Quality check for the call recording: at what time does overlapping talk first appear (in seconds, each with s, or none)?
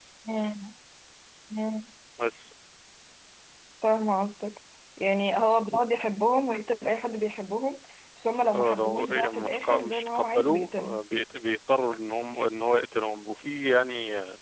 8.5 s